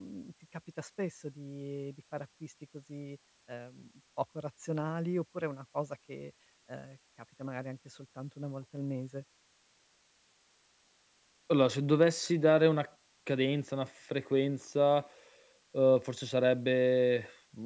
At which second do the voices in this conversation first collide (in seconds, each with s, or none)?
none